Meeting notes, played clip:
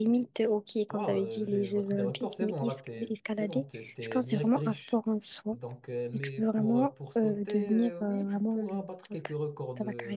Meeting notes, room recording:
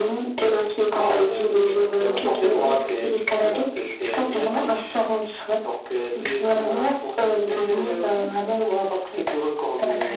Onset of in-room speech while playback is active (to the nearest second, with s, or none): none